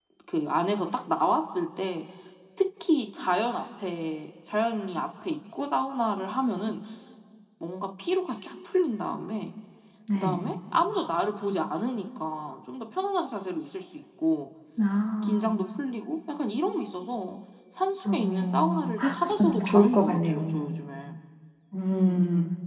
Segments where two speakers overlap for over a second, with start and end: 18.1-20.7

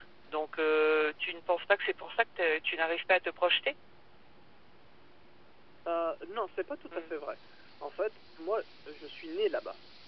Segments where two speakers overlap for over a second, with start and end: none

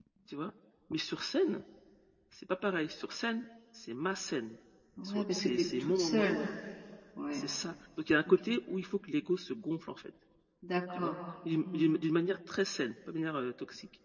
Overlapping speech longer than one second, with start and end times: 5.0-6.4

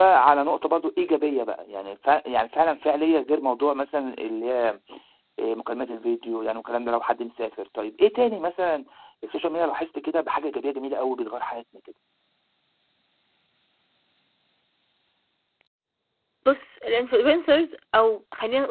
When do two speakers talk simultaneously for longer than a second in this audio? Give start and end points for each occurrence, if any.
none

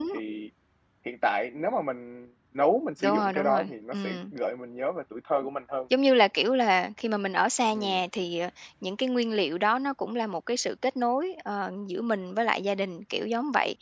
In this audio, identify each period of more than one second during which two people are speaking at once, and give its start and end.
3.0-4.3

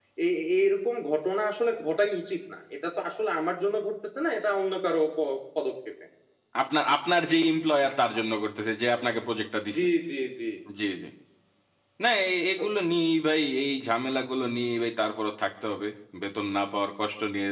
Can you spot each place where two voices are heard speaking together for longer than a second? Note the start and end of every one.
none

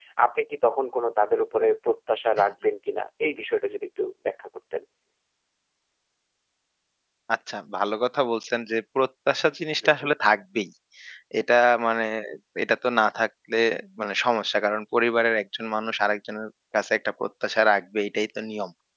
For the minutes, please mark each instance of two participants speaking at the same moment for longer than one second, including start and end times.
none

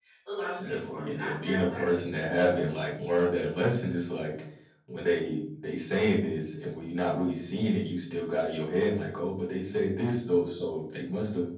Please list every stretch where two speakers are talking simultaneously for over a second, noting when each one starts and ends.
0.6-1.9

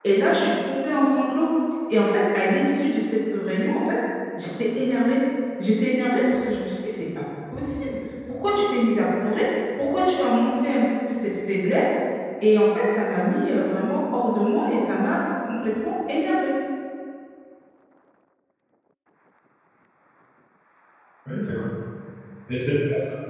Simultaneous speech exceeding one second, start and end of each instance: none

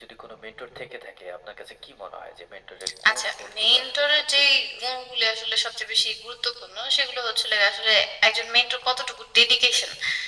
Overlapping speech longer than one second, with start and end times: 3.1-5.0

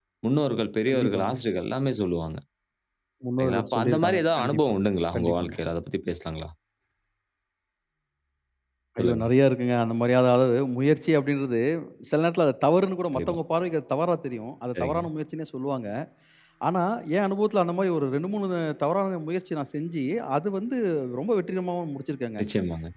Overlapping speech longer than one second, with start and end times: 3.4-4.6

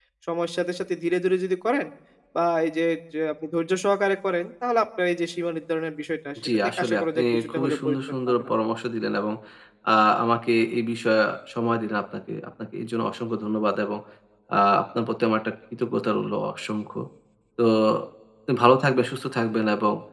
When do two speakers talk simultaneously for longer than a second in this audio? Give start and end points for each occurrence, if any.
6.5-8.5

